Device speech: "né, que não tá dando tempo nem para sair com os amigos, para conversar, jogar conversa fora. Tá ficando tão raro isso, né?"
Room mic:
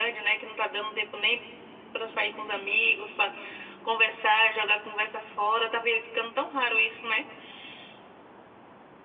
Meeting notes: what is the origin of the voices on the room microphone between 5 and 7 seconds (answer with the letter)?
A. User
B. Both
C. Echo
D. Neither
C